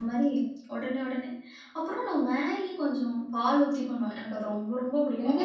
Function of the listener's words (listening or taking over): taking over